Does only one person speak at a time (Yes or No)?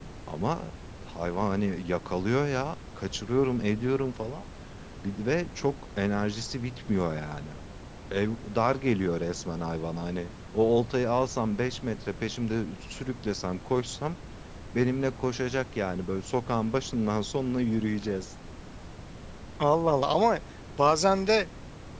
Yes